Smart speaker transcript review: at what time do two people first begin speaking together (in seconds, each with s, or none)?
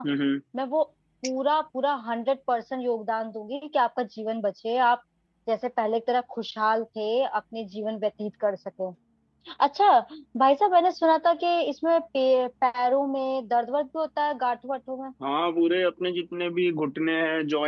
none